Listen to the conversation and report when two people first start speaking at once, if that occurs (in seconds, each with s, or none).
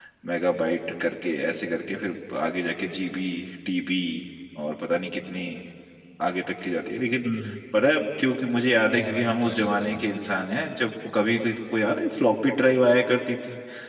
8.9 s